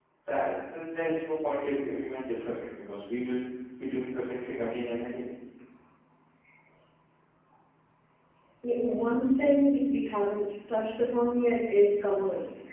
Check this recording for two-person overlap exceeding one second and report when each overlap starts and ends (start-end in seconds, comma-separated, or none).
none